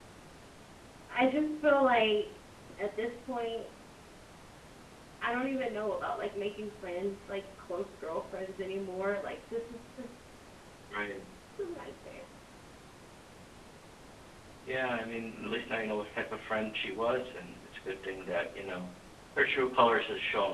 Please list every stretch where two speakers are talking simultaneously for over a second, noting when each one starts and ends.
none

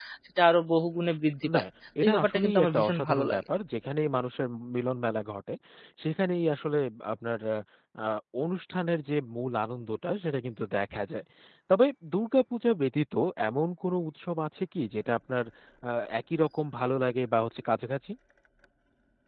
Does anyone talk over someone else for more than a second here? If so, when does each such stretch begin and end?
2.0-3.4

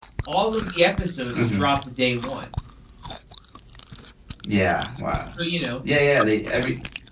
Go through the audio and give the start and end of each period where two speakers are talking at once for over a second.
none

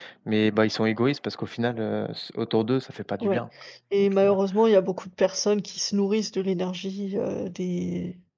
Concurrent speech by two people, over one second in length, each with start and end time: none

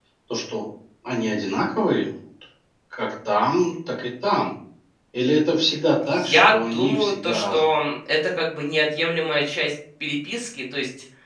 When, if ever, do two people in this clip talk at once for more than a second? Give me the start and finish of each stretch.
6.1-7.7

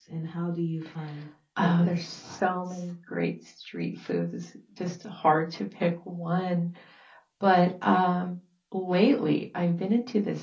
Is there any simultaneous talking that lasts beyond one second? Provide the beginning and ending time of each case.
1.6-2.9

